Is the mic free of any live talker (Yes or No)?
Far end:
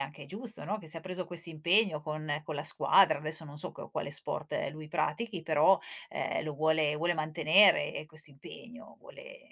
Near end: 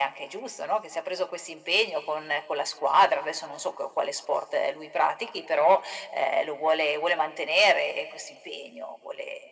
Yes